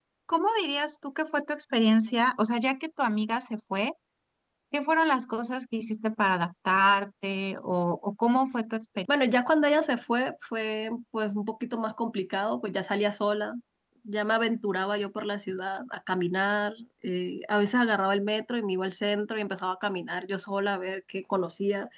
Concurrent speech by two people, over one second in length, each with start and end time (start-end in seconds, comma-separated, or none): none